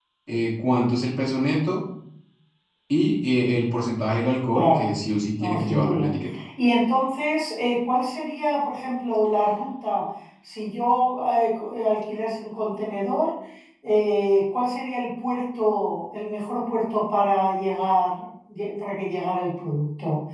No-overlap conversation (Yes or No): No